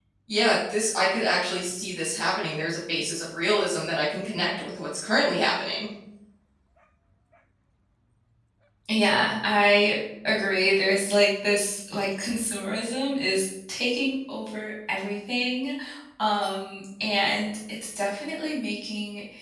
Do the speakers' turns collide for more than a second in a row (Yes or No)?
No